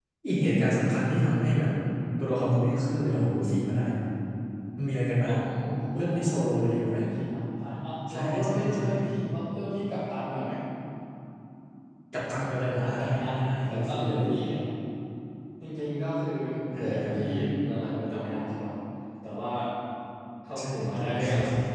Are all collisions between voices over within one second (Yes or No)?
No